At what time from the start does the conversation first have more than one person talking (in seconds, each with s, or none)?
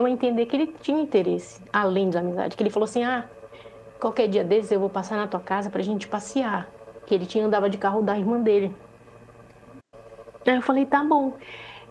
none